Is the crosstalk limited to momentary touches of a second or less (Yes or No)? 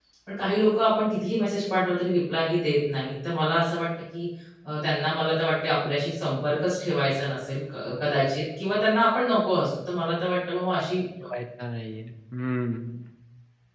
Yes